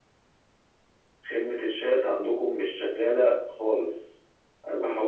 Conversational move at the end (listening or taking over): listening